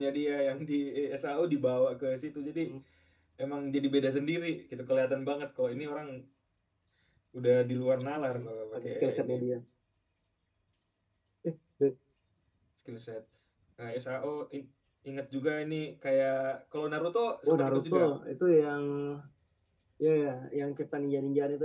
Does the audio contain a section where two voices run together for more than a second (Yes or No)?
Yes